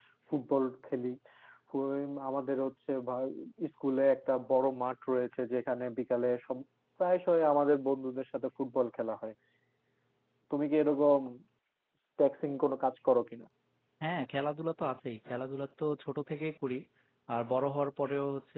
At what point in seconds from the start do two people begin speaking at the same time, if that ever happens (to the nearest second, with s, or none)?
none